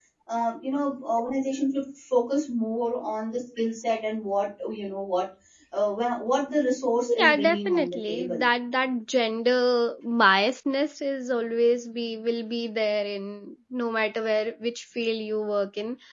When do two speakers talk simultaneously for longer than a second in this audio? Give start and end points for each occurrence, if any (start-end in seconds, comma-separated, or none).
7.2-8.4